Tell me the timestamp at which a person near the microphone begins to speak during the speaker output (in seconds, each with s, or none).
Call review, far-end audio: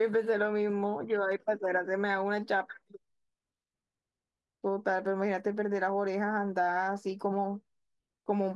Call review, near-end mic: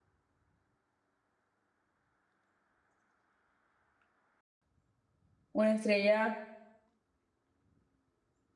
5.5 s